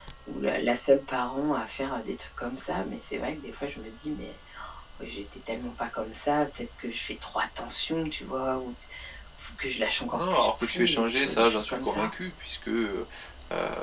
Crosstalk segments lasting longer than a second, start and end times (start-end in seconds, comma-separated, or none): 10.1-12.1